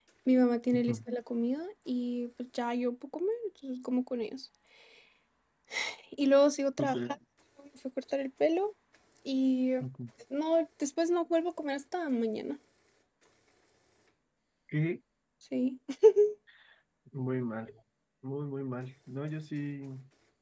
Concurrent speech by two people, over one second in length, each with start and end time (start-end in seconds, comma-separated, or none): none